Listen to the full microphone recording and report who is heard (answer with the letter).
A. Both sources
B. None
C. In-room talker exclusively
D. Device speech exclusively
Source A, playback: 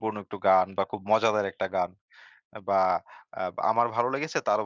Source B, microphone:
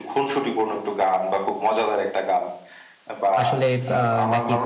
A